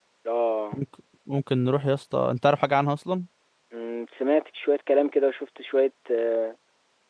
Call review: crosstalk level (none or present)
none